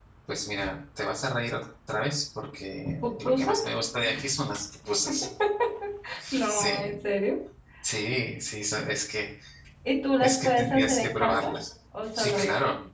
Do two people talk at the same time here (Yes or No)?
Yes